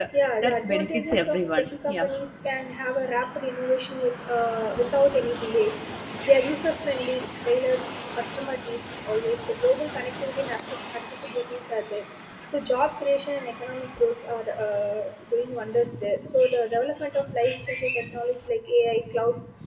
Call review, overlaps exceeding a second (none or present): present